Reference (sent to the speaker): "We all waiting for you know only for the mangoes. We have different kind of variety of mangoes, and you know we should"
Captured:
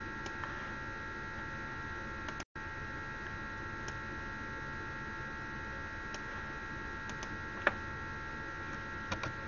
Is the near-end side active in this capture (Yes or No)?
No